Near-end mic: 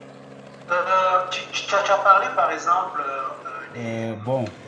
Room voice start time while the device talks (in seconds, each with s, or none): 3.7 s